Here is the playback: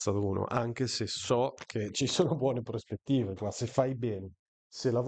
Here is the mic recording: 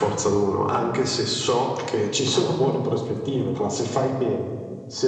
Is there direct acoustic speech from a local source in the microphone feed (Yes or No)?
No